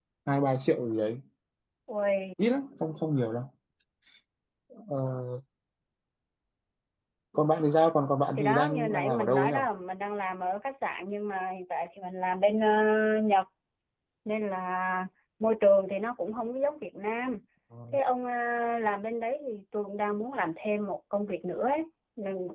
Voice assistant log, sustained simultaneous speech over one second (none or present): present